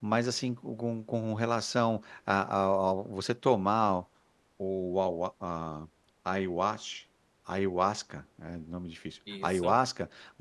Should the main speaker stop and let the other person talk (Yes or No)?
No